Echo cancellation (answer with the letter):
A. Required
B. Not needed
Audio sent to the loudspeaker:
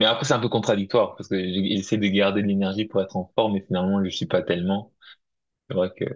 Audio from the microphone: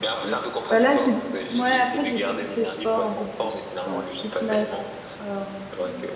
A